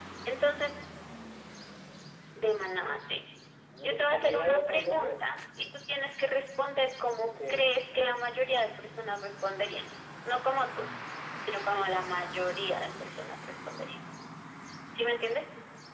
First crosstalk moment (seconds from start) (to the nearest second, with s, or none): 4 s